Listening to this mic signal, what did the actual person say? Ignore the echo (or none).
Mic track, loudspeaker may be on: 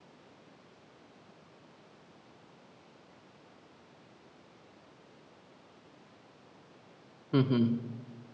Mhm.